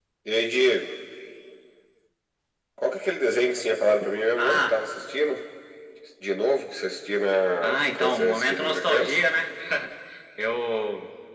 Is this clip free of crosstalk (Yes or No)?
No